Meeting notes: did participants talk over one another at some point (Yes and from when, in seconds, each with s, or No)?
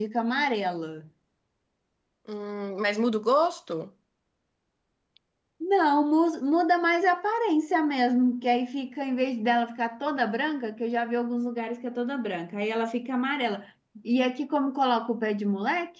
No